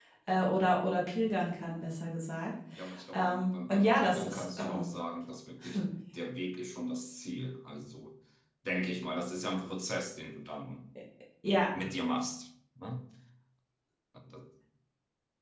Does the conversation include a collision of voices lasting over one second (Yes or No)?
Yes